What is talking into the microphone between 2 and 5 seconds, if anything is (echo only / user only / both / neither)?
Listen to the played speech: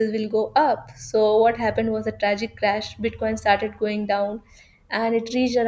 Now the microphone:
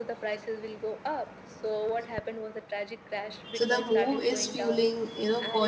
both